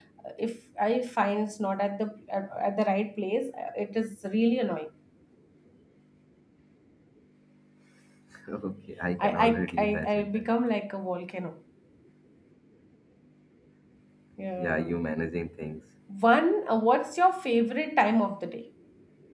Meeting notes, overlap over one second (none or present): present